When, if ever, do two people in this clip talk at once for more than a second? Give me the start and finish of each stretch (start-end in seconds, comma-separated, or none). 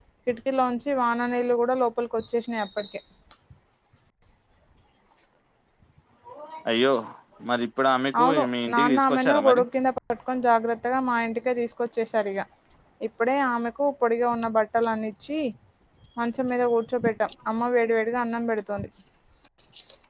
8.2-9.6